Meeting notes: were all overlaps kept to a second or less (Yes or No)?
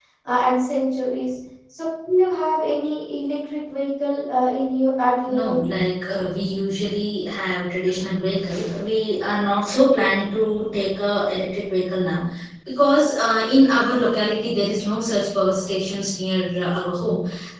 Yes